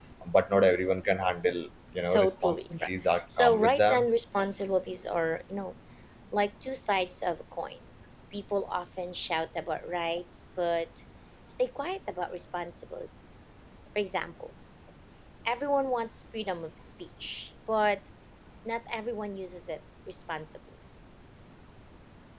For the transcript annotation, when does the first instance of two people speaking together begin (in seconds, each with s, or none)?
2.1 s